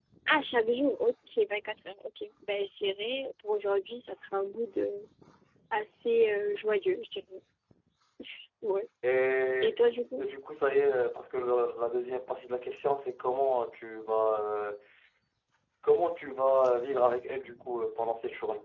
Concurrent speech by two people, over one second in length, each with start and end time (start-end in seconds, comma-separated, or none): none